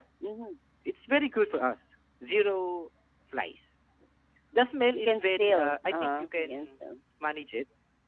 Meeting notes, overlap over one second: present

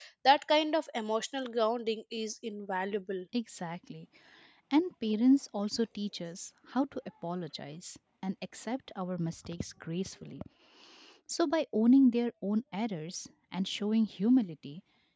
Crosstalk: none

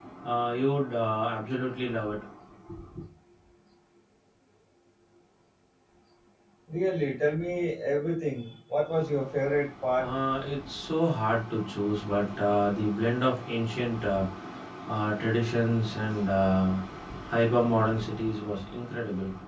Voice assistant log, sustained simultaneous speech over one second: none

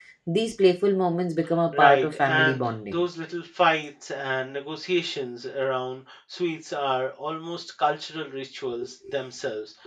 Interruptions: present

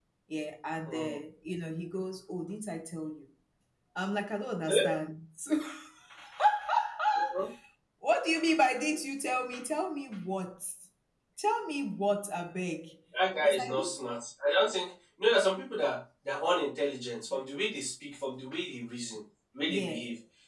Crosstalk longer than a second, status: none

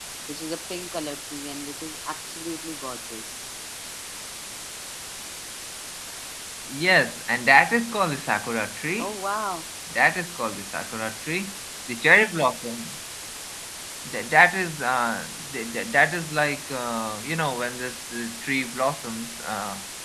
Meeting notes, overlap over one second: none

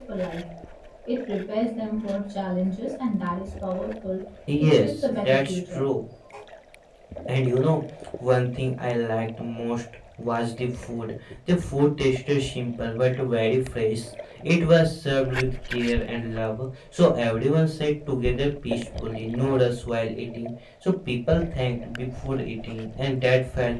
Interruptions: present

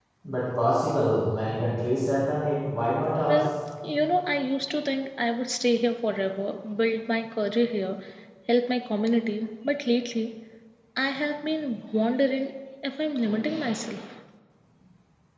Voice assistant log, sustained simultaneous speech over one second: none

